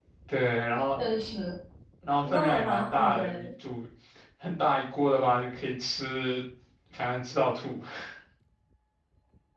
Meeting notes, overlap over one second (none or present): present